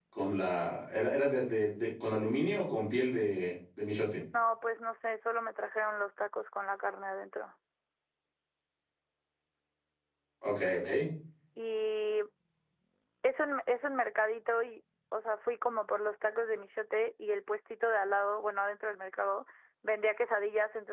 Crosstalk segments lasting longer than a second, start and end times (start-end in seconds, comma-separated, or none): none